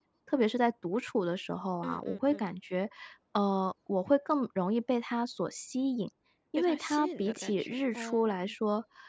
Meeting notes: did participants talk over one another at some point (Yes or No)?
Yes